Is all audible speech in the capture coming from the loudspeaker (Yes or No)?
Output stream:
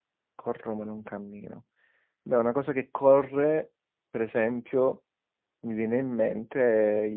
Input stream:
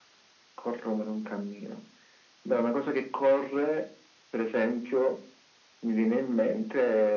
Yes